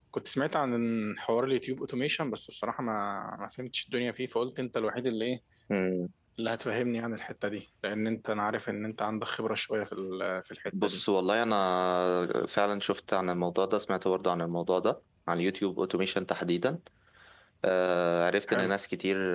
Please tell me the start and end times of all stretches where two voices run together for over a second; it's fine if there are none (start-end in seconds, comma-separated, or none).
none